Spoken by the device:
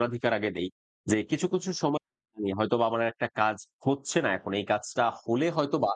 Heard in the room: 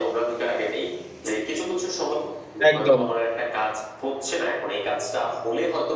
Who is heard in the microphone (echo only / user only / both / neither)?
both